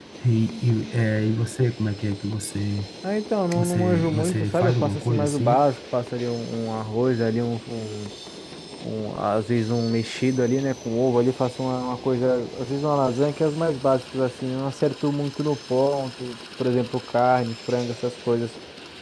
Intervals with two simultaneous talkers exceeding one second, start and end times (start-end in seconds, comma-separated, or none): 3.5-5.6